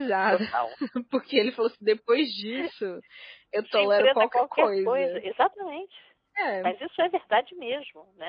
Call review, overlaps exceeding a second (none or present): present